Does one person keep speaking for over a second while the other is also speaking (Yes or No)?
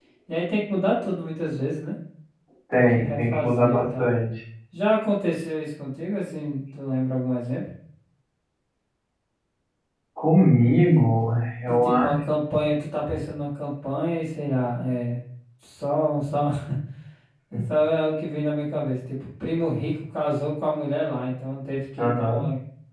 Yes